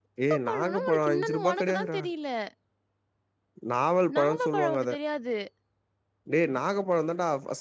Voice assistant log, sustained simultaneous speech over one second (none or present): present